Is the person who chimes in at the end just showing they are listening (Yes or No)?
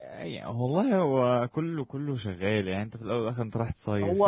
No